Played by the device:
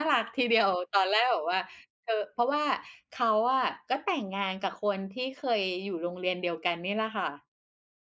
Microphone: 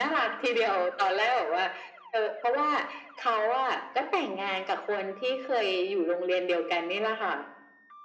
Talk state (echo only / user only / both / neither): echo only